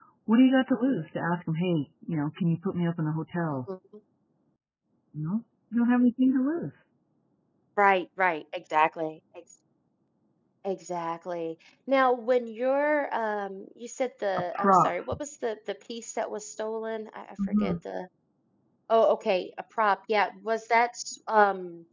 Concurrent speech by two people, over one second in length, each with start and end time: none

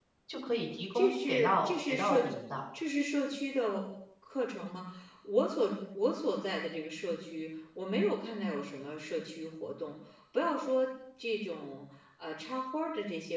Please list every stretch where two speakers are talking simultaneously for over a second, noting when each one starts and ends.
0.9-2.3

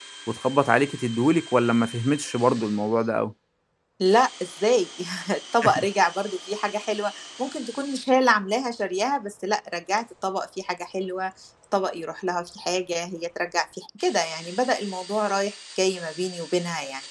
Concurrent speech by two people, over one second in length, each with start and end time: none

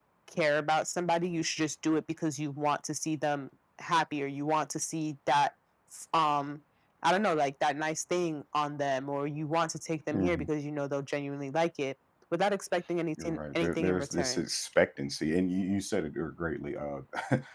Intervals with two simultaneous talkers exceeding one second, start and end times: 13.2-14.4

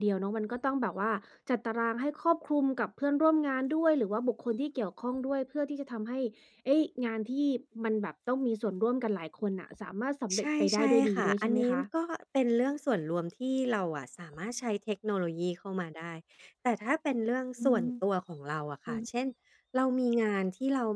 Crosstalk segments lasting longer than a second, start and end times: 10.4-11.8

